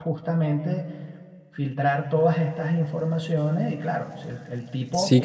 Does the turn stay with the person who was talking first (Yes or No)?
No